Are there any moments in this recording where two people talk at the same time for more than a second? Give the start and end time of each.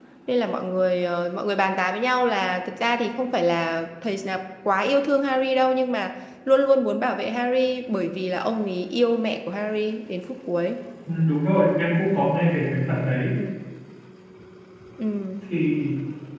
none

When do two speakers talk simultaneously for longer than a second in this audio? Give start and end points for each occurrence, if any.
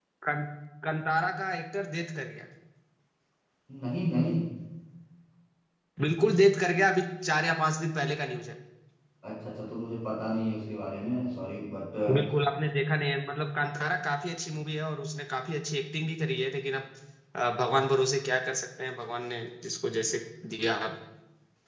none

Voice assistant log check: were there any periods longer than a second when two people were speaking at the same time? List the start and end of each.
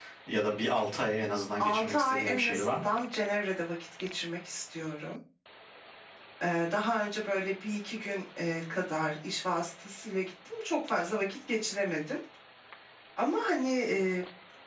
1.6-2.9

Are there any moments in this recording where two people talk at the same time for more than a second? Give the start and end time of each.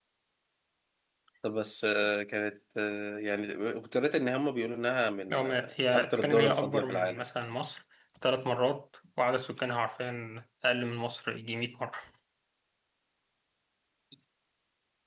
5.3-7.2

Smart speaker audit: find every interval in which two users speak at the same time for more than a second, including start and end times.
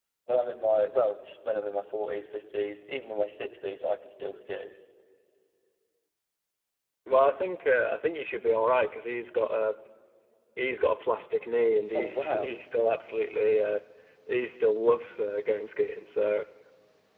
none

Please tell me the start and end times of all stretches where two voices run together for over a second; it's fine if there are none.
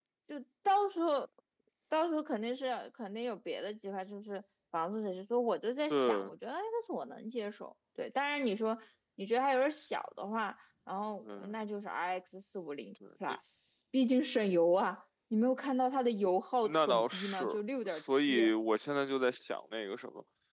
16.6-18.5

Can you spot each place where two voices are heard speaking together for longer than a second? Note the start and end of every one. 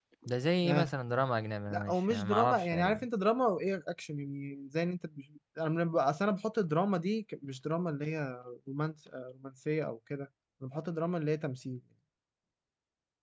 1.7-3.0

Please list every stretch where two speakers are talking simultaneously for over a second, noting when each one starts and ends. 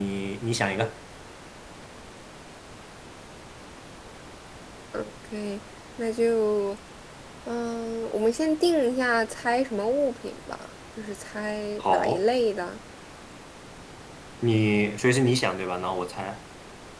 none

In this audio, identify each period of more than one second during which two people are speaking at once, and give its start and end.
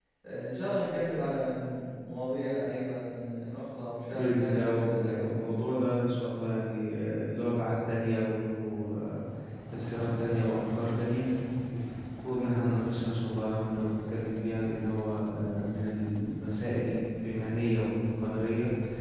4.1-5.9

